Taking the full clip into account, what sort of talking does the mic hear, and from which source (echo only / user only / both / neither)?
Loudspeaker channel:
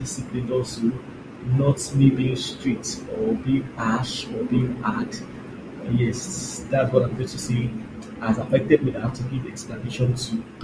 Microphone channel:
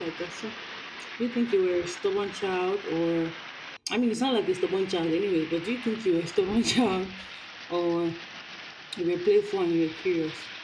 user only